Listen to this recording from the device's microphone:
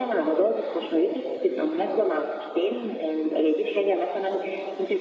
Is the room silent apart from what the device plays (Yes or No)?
Yes